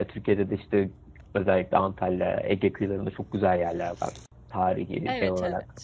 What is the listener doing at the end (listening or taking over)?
taking over